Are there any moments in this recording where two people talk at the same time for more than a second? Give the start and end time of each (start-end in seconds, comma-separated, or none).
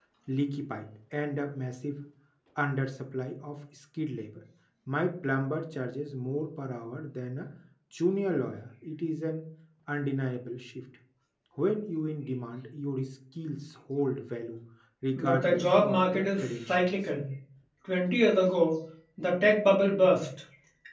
15.2-16.9